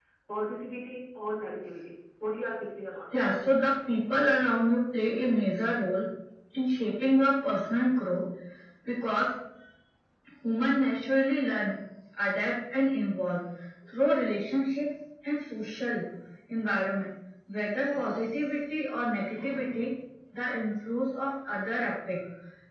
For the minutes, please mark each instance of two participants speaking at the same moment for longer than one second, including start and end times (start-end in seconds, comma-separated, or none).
none